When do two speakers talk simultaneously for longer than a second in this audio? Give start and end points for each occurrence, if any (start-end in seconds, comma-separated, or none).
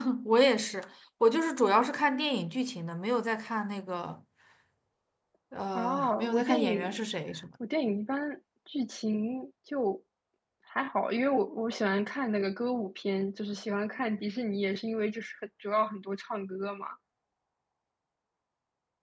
5.8-7.0